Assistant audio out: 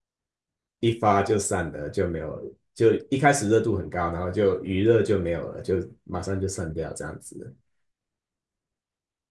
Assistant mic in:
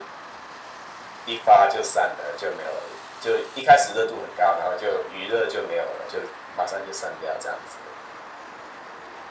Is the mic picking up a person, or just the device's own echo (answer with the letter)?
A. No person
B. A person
A